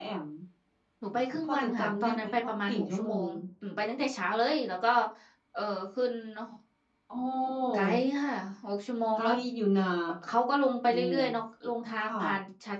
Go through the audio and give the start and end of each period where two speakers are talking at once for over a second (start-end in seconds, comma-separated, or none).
1.4-3.3